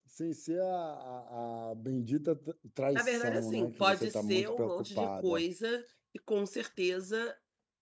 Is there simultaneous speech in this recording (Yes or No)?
Yes